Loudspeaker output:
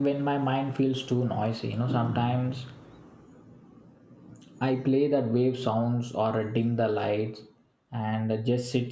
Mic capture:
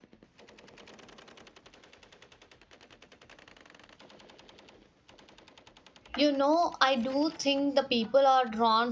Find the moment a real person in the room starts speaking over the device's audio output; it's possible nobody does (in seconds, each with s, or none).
6.2 s